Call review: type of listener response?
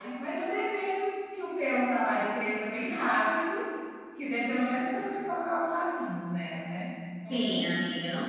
taking over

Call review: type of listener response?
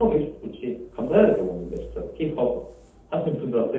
taking over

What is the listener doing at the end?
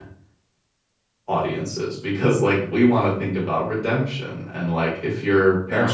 listening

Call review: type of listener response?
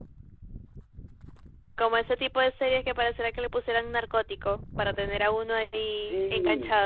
taking over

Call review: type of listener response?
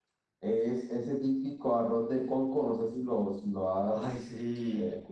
listening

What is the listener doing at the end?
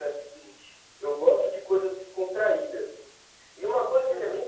listening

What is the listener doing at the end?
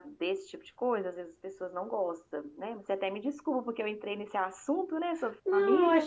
taking over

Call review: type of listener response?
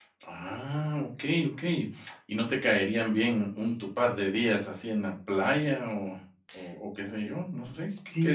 taking over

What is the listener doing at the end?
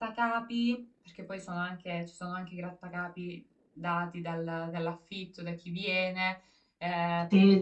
taking over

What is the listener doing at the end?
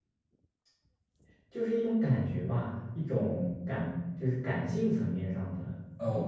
taking over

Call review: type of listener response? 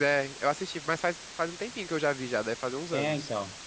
taking over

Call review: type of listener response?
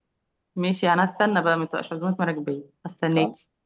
taking over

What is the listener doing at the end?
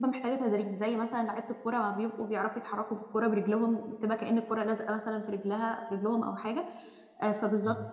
listening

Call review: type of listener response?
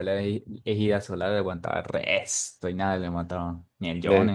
taking over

